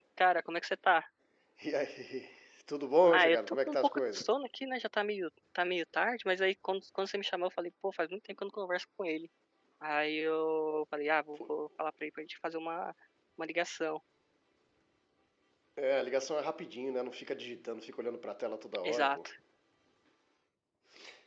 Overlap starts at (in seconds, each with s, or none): 3.0 s